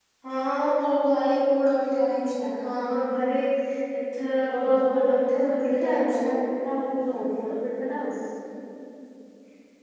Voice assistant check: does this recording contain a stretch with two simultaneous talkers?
Yes, from 4.6 s

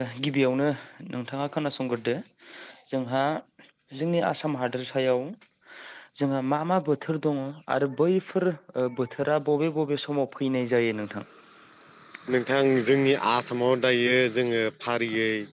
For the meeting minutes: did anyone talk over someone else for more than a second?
No

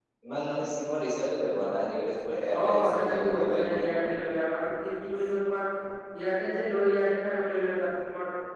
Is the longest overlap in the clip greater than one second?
Yes, from 2.5 s

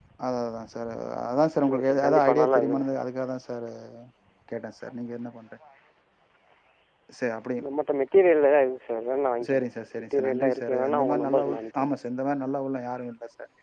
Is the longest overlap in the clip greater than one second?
Yes, from 1.7 s

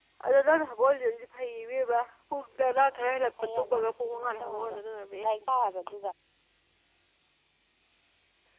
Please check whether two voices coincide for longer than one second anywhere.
Yes, from 3.4 s

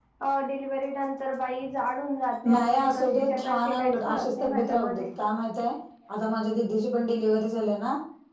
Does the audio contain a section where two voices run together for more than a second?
Yes, from 2.4 s

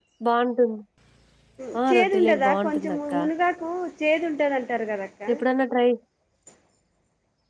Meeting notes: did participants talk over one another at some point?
Yes, from 1.9 s

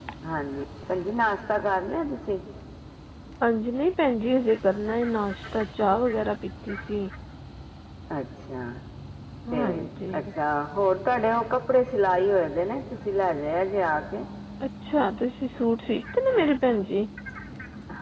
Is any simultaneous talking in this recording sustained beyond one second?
No

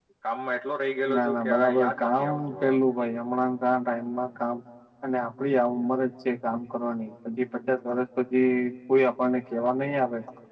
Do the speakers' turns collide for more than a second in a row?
Yes, from 1.1 s

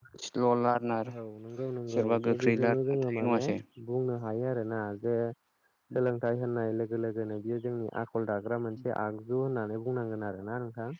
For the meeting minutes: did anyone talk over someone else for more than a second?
Yes, from 1.9 s

